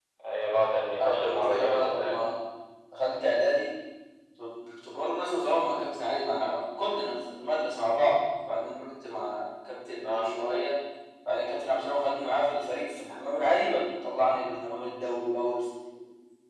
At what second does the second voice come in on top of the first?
1.0 s

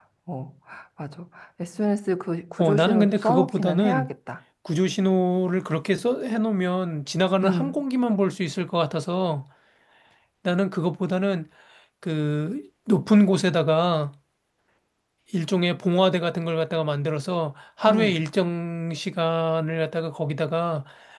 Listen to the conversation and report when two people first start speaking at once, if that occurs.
2.6 s

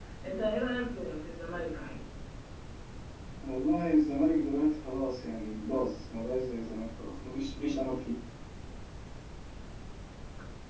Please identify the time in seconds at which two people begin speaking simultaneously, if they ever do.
none

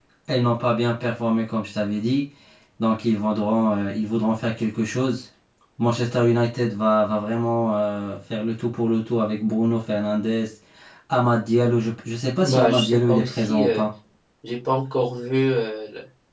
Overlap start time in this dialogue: 12.4 s

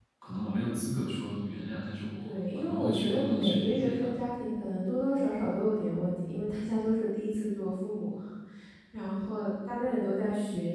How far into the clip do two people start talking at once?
2.2 s

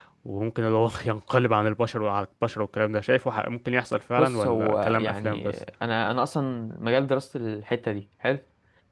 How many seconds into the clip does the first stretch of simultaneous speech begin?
4.2 s

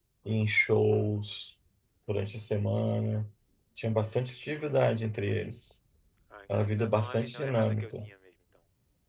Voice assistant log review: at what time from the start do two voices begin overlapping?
6.8 s

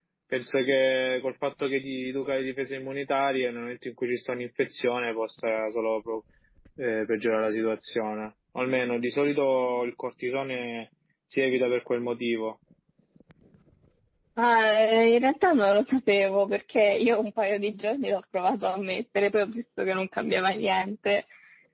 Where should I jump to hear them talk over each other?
none

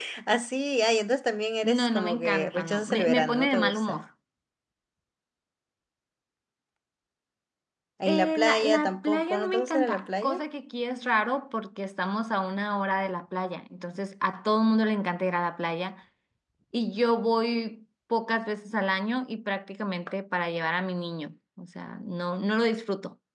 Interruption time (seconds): 1.6 s

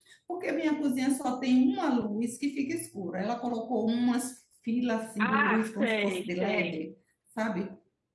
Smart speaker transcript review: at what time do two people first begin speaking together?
5.2 s

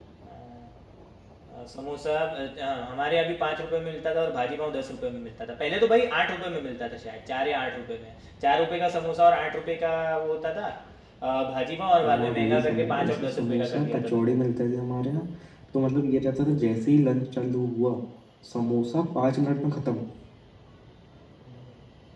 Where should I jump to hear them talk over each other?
12.0 s

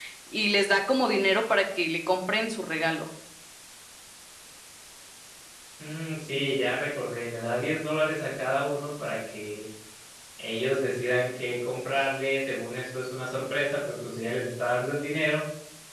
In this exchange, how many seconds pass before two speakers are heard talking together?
none

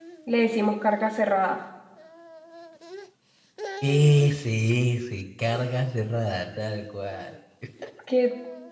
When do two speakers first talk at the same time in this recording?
none

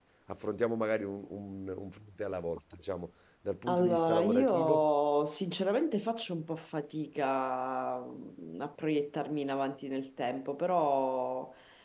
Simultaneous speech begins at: 3.7 s

